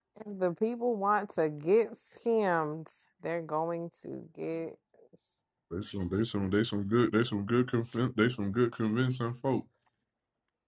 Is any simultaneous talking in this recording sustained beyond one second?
No

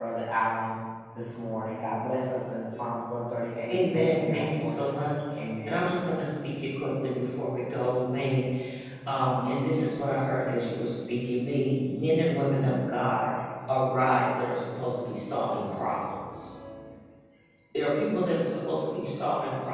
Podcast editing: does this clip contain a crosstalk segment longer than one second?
Yes, from 3.7 s

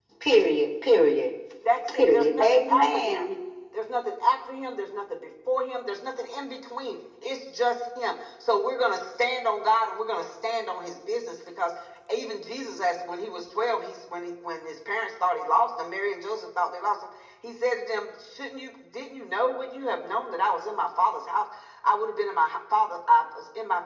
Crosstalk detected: Yes, from 1.9 s

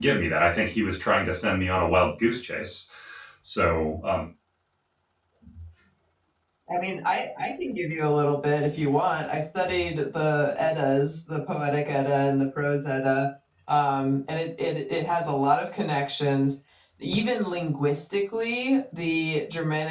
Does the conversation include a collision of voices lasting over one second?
No

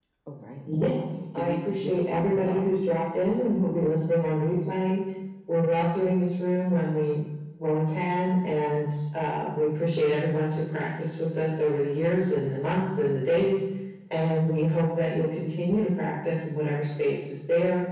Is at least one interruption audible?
Yes, from 0.8 s

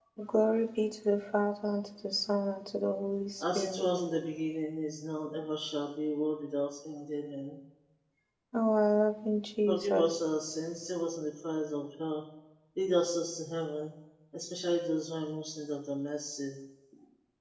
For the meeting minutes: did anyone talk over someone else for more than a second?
No

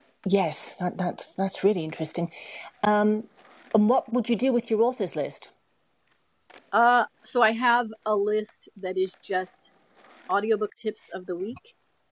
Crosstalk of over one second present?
No

